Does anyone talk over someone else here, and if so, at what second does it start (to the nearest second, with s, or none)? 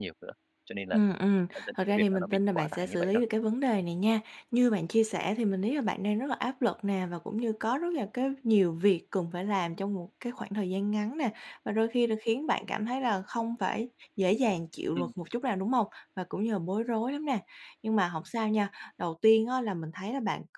2 s